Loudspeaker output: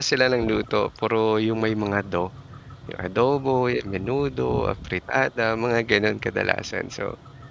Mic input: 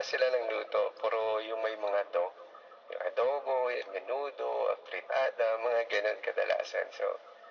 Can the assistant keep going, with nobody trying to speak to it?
Yes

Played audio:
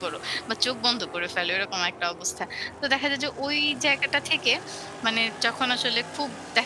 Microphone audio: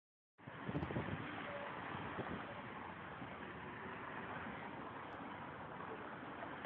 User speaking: No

